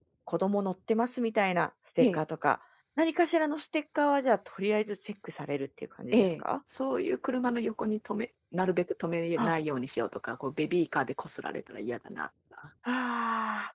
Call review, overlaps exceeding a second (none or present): none